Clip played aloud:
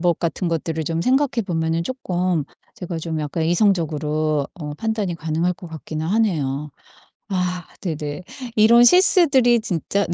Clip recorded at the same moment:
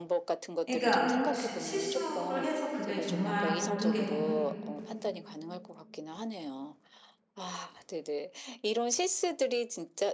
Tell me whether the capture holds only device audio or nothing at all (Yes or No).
No